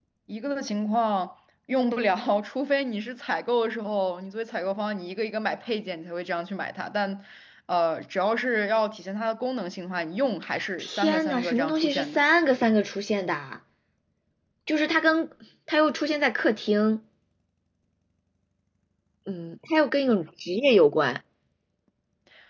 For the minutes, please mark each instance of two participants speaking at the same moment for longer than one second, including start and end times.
10.8-12.2

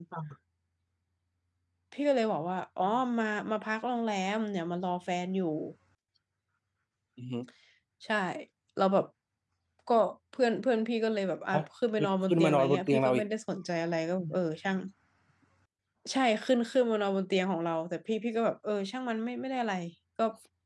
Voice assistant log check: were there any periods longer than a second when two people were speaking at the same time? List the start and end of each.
12.0-13.3

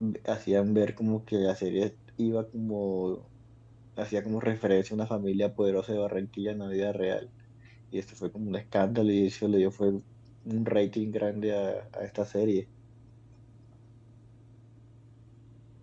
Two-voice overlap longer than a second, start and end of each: none

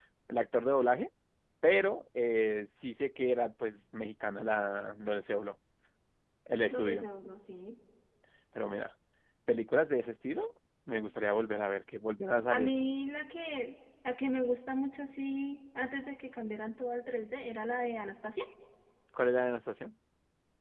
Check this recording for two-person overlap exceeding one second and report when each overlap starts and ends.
none

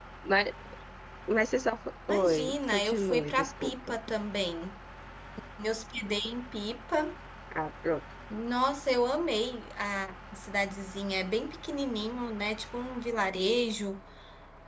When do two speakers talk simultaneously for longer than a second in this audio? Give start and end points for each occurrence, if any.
2.1-4.0

